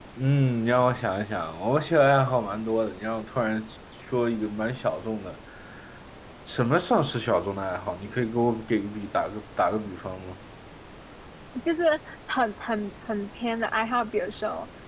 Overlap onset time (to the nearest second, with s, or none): none